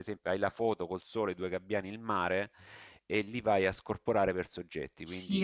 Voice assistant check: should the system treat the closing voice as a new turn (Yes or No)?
Yes